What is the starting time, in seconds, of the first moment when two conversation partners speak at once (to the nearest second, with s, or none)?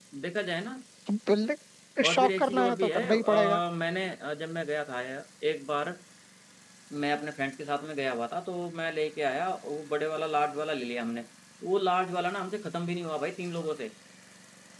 2 s